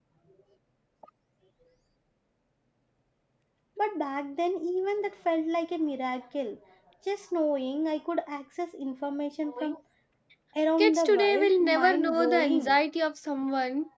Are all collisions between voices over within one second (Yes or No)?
No